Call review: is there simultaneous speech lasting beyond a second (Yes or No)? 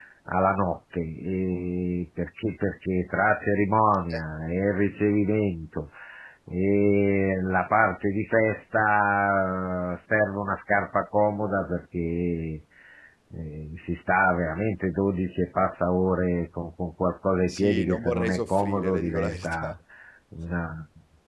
Yes